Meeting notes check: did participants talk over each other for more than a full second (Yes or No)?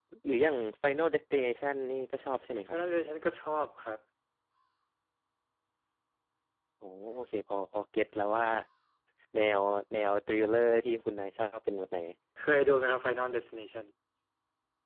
No